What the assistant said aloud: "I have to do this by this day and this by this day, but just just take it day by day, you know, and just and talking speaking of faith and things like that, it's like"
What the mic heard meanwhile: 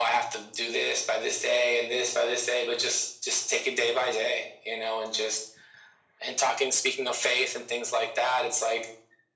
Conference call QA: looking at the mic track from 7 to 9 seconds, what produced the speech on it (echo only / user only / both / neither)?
echo only